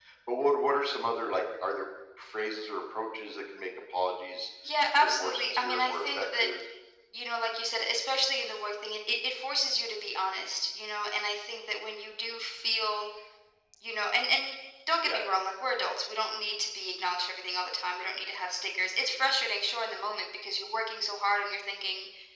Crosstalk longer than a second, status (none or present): present